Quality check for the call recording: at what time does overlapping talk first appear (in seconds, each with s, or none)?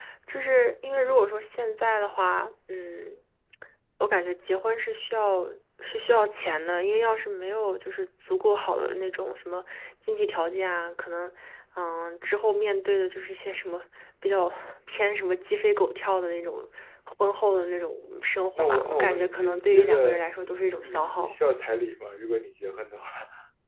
18.6 s